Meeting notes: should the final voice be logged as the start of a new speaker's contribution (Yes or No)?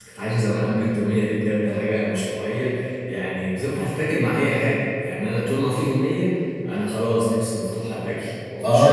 Yes